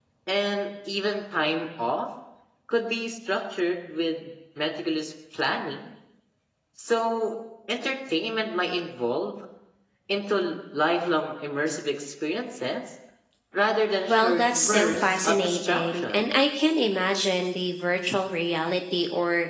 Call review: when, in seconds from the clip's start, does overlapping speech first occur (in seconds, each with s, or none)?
14.1 s